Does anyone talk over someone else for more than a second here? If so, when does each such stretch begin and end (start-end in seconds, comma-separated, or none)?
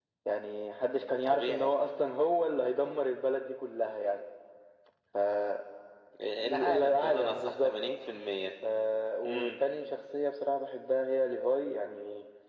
6.4-7.8